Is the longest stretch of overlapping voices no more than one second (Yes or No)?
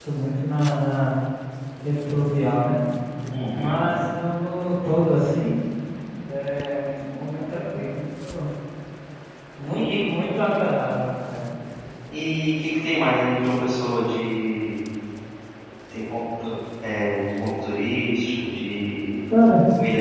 Yes